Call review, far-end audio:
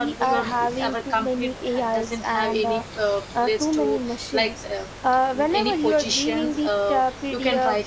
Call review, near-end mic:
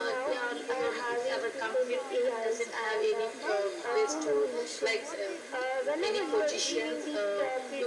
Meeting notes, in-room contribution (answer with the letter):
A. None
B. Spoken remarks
B